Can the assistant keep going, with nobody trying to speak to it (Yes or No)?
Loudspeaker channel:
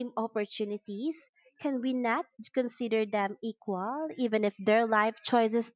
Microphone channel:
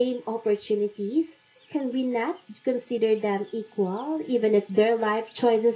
Yes